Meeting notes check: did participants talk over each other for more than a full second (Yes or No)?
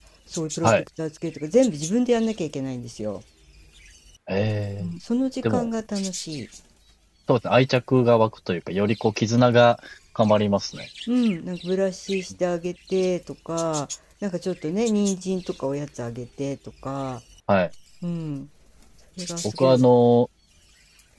No